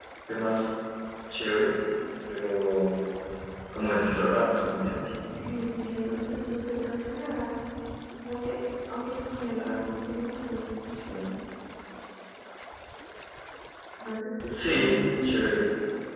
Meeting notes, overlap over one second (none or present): none